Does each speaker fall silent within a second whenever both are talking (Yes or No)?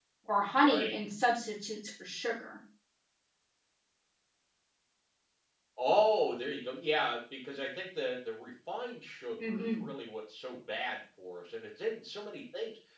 Yes